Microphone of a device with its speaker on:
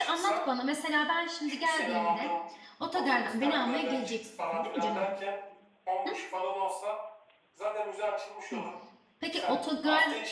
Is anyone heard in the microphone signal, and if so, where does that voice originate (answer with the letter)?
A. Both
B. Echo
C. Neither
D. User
A